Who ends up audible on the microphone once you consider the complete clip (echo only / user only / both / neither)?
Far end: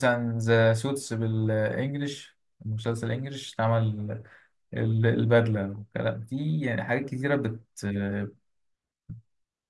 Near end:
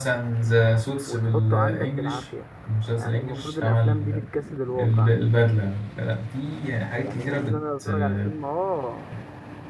both